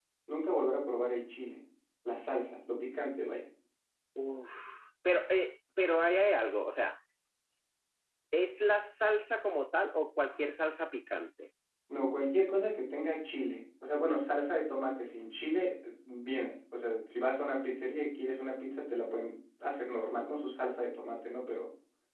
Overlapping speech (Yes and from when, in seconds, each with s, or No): No